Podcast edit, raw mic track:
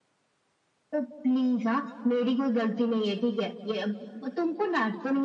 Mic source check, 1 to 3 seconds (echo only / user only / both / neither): echo only